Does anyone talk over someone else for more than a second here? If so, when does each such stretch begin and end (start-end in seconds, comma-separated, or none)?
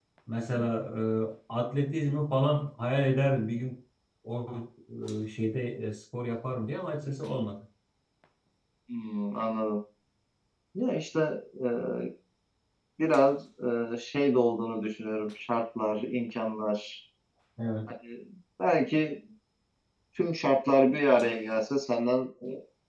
none